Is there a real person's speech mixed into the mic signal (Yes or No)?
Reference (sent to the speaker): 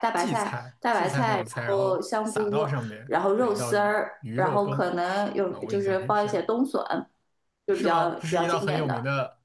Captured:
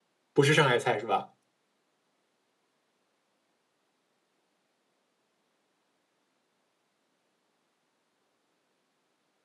Yes